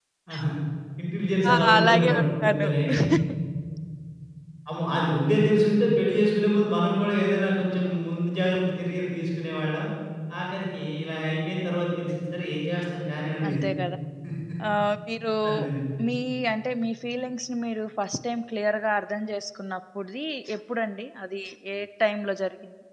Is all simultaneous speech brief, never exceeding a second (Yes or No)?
No